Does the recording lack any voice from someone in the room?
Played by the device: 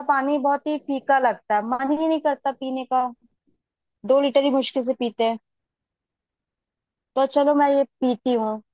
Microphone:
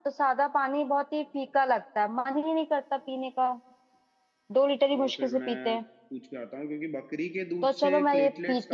No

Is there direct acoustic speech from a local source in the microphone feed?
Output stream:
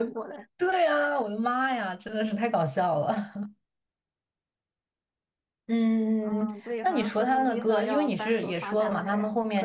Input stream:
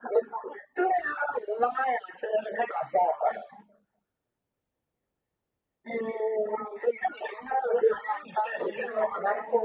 Yes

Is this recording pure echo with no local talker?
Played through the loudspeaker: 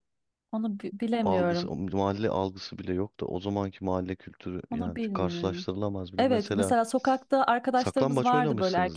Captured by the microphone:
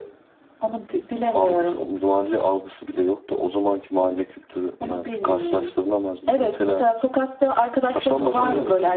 No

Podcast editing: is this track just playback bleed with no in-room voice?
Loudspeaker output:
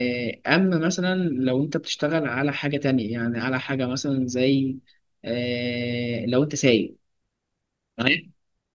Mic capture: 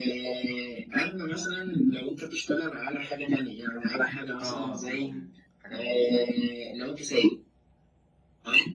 No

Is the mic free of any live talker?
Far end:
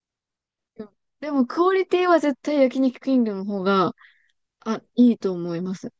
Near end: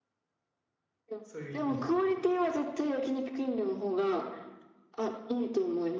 No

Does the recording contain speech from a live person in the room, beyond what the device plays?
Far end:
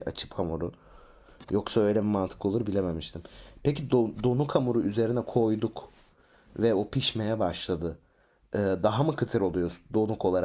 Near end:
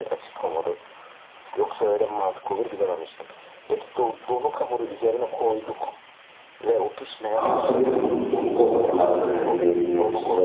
Yes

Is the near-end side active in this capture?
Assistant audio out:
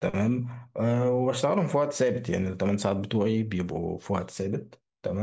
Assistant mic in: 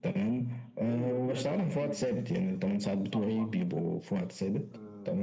Yes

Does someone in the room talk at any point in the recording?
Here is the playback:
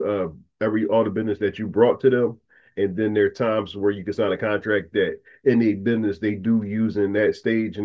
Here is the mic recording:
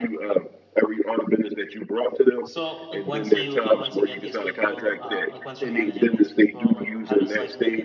Yes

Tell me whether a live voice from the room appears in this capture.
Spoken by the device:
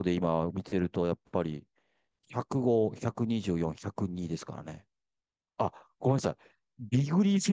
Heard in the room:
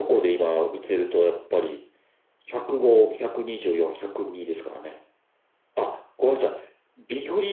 No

